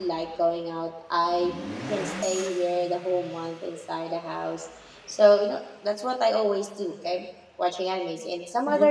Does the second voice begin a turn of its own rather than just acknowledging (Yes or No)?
Yes